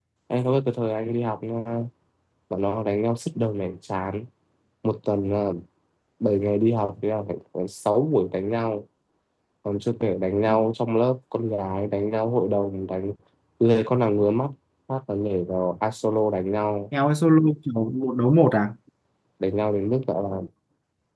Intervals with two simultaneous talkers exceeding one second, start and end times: none

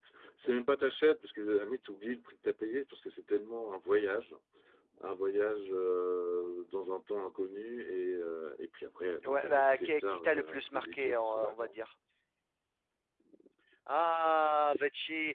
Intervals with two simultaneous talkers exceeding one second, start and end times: 9.2-11.5

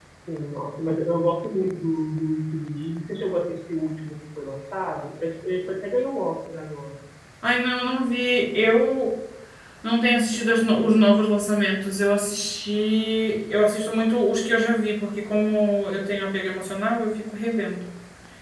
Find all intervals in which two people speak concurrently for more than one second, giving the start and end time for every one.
none

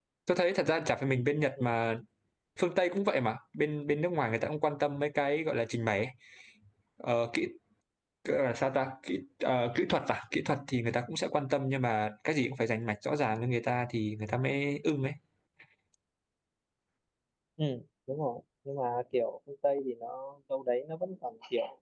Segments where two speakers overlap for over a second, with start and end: none

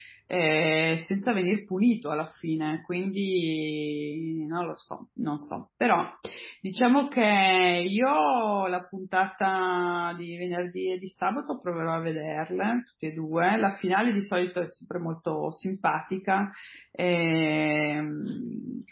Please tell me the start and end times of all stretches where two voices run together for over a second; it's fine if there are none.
none

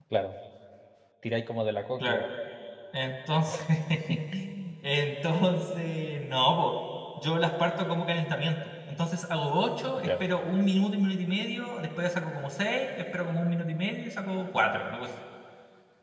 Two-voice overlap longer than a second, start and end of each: none

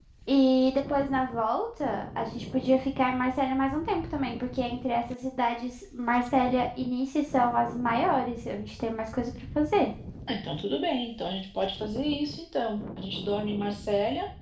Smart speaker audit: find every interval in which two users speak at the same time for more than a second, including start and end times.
none

